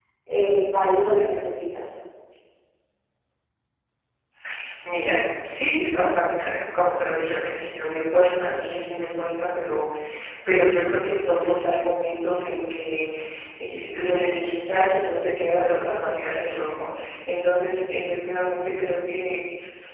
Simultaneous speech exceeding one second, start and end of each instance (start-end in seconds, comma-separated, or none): none